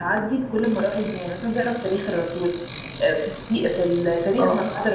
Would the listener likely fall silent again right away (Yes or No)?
Yes